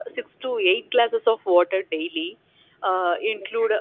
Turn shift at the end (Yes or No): No